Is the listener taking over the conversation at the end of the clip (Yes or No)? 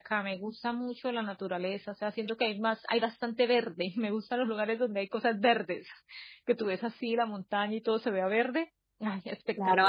Yes